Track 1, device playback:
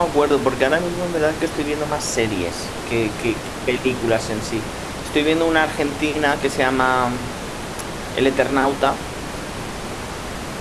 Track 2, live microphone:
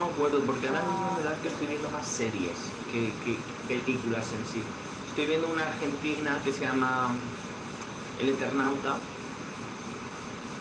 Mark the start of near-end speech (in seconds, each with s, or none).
0.6 s